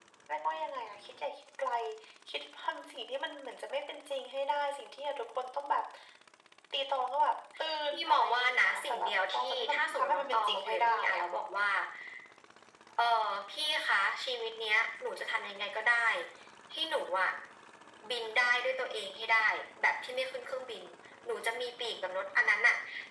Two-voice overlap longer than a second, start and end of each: 7.8-11.2

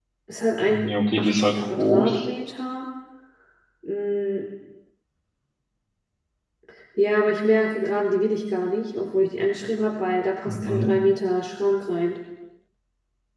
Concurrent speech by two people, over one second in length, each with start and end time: 0.8-2.2

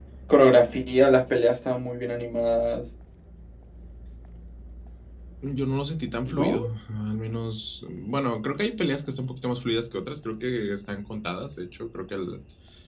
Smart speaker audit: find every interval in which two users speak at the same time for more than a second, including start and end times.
none

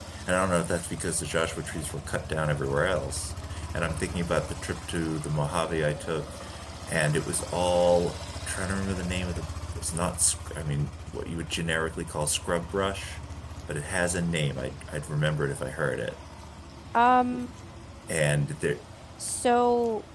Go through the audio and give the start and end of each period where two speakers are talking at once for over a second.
none

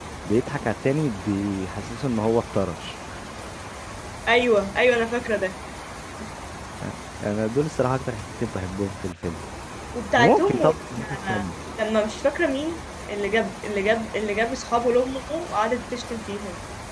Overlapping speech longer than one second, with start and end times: 10.2-11.4

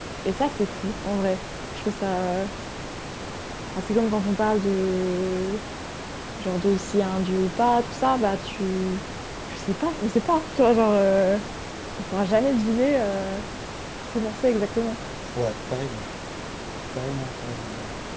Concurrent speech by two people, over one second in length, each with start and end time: none

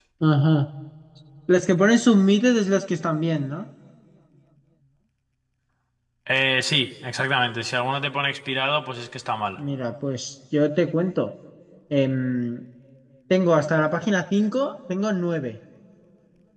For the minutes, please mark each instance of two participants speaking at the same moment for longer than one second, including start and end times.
none

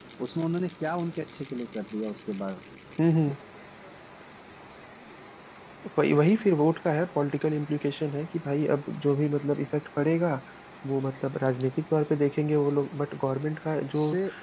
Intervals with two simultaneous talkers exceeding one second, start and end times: none

